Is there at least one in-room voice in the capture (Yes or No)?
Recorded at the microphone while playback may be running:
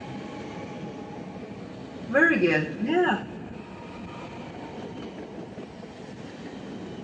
Yes